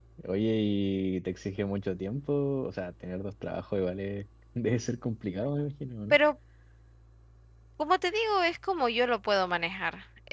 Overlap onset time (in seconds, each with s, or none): none